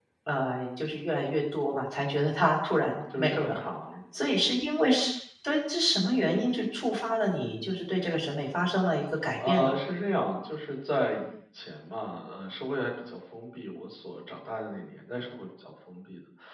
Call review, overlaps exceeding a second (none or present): none